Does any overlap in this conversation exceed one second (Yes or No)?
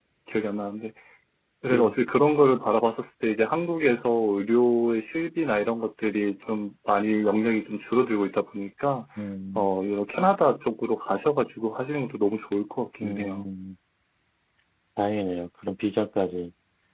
No